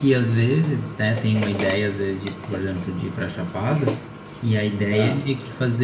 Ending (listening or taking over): listening